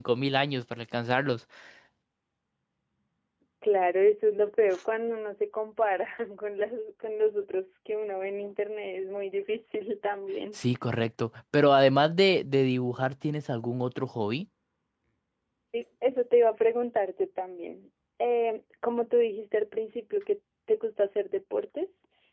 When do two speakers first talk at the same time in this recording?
none

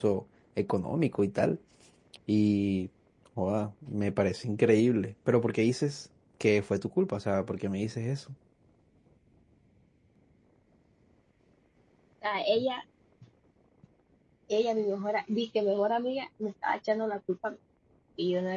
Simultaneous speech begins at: none

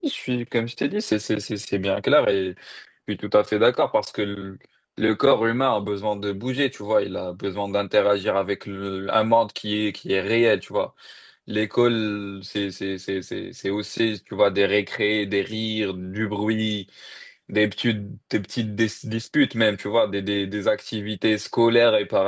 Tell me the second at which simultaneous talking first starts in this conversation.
none

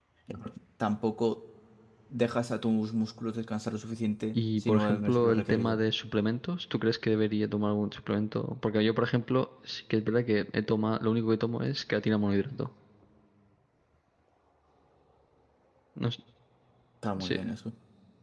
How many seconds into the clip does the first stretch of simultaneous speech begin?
4.3 s

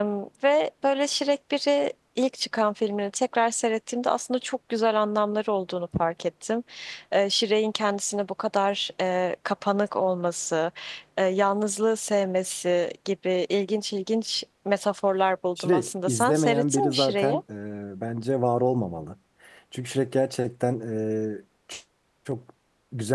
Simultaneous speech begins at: 15.6 s

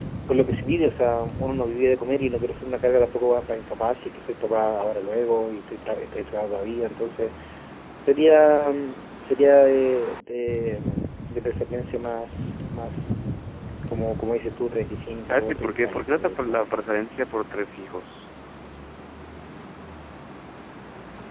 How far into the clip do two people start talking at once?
15.2 s

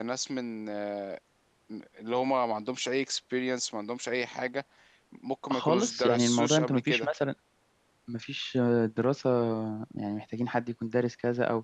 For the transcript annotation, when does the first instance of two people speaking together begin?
5.5 s

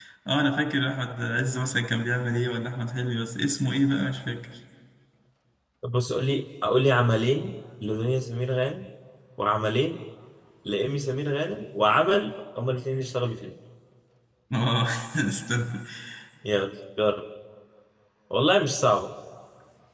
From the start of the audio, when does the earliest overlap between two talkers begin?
none

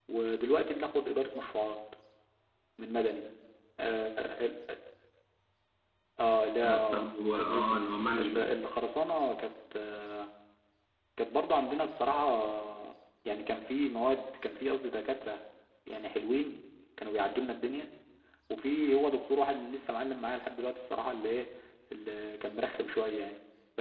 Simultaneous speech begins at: 6.6 s

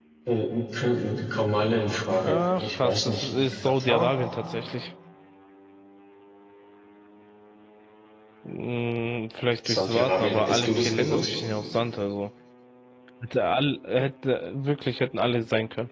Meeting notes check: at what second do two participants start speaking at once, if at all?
2.2 s

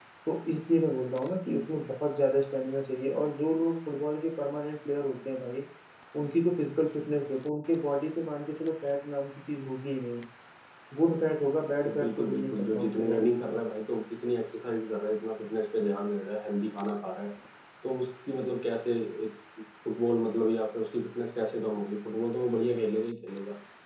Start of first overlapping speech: 11.8 s

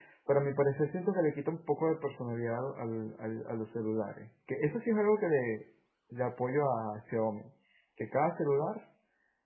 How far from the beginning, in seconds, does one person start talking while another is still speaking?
none

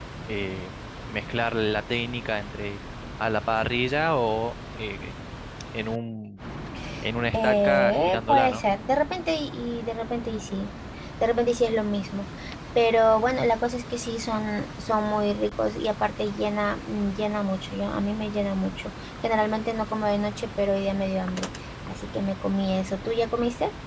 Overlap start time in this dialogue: 7.3 s

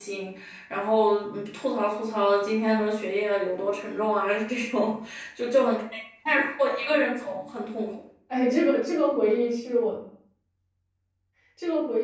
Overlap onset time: none

